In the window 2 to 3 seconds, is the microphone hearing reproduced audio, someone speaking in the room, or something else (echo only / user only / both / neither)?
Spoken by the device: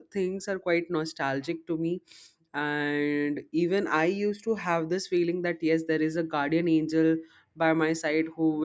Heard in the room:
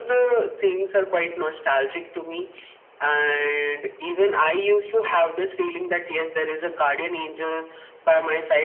echo only